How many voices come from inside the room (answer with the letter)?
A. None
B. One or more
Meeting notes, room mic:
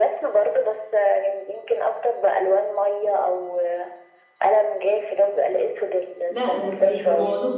B